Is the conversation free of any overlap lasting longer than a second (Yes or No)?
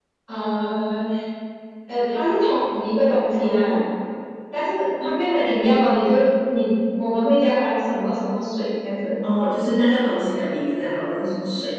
Yes